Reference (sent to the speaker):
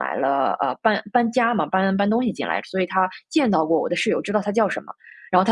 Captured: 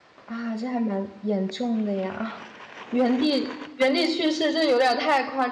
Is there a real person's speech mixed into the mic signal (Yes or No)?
Yes